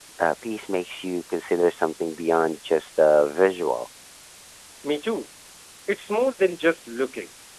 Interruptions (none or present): none